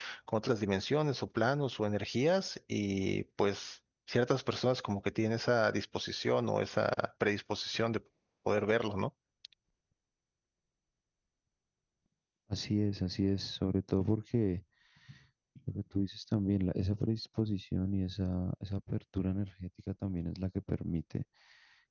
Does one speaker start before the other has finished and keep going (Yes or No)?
No